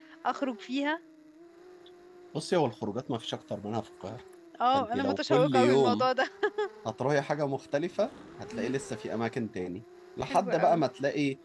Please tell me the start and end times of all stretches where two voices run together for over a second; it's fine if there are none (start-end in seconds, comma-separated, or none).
4.7-6.1